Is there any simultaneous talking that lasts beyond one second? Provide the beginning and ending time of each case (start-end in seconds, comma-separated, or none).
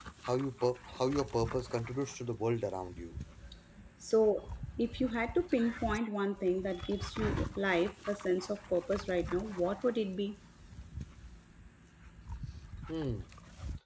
none